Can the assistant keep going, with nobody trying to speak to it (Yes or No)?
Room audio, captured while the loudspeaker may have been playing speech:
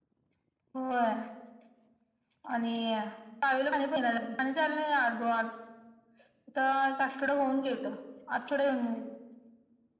Yes